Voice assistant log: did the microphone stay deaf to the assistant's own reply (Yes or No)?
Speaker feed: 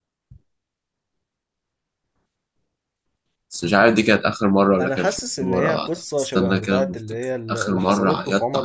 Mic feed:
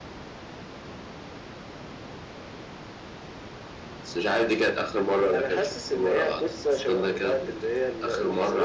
No